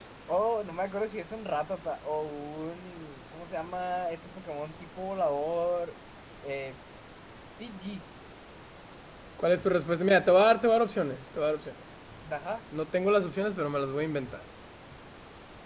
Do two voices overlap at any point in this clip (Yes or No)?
No